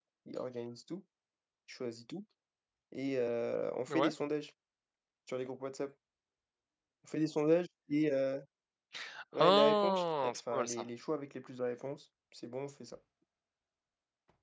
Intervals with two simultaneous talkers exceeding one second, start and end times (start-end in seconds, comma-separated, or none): 9.4-10.8